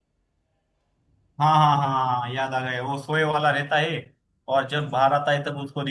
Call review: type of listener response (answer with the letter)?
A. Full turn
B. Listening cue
B